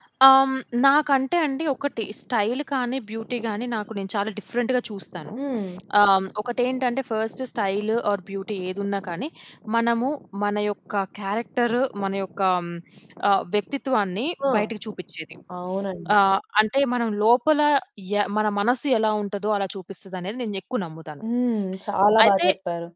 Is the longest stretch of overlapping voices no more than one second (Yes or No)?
Yes